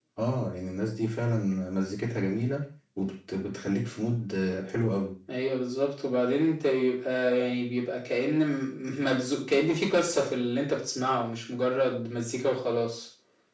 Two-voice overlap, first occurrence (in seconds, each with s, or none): none